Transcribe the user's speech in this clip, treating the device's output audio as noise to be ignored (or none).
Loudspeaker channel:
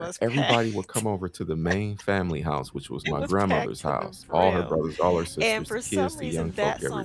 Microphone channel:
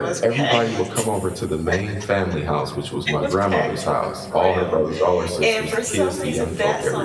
none